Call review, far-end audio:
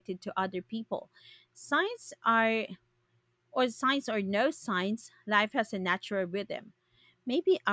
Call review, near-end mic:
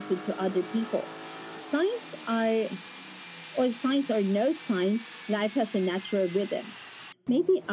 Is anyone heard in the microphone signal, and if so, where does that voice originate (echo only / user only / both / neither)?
echo only